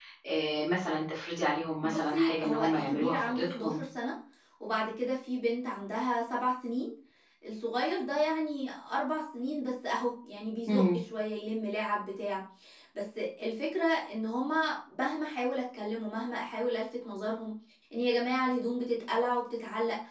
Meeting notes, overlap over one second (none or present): present